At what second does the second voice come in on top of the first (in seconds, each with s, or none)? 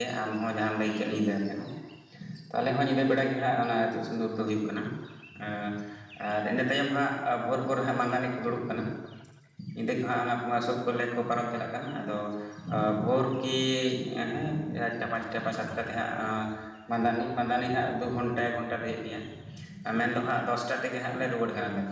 none